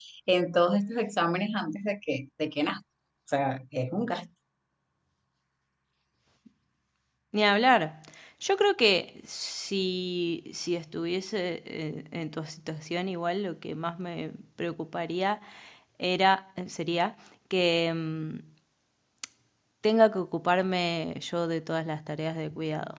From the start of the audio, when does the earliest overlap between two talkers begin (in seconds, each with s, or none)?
none